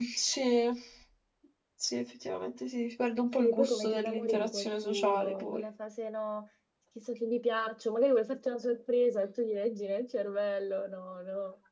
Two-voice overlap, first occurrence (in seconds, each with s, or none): 3.4 s